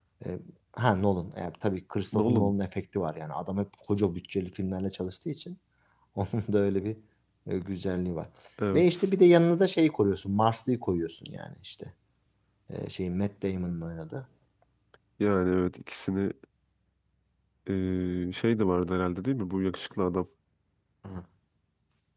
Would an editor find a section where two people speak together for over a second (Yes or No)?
No